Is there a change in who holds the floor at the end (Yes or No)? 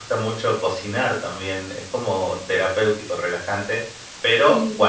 No